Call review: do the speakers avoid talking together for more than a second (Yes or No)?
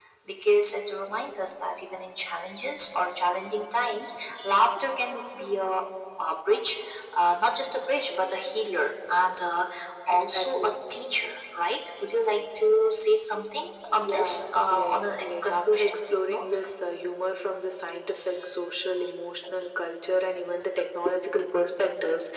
No